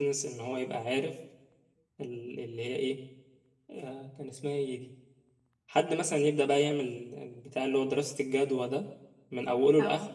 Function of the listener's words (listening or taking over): listening